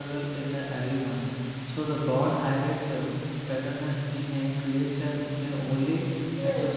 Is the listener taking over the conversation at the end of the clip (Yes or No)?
Yes